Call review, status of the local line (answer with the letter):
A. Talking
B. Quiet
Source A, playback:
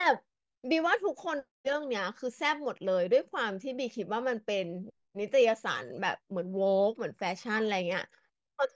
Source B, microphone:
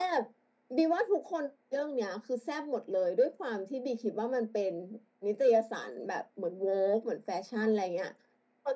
B